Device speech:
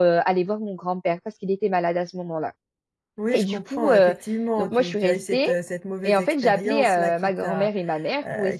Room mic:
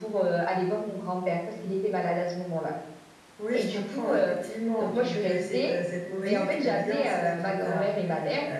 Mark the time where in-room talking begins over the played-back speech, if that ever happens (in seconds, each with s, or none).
6.1 s